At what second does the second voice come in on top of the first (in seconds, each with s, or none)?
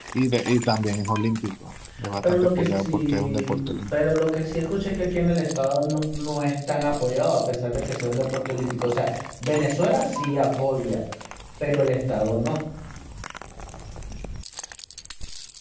2.2 s